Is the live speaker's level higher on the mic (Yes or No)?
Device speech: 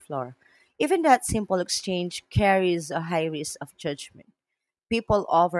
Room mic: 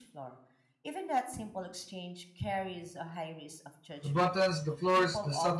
Yes